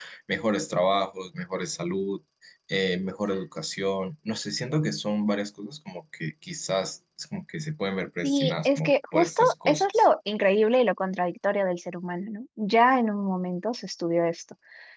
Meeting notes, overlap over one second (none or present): present